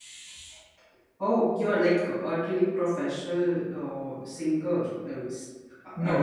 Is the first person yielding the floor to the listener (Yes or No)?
Yes